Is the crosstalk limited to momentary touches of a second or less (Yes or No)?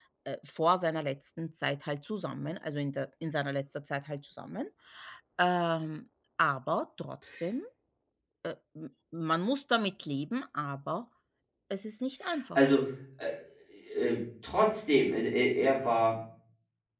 Yes